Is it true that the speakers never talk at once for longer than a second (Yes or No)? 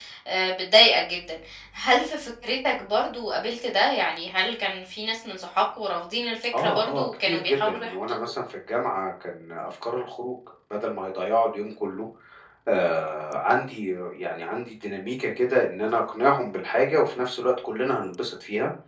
No